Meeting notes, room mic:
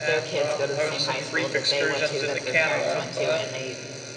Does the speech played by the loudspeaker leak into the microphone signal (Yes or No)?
Yes